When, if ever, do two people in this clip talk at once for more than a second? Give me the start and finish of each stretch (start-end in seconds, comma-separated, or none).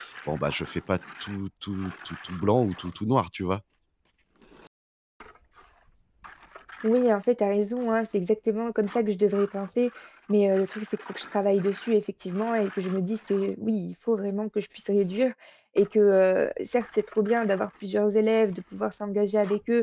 none